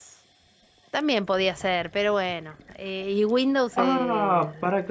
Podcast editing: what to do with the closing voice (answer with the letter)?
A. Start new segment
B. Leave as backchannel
A